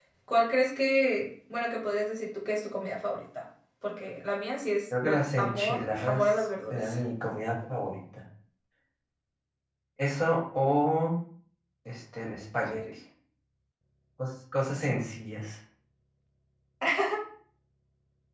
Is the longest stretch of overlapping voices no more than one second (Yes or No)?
No